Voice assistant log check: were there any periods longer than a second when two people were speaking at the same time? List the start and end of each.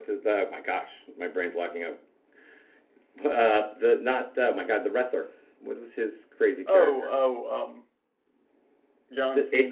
none

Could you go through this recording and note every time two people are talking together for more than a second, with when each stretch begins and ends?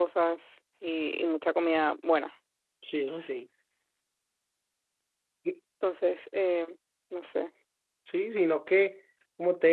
none

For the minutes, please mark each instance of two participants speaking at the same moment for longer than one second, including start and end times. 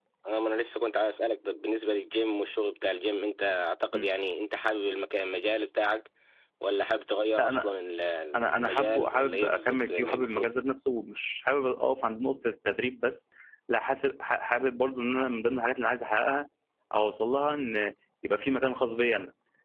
8.4-10.5

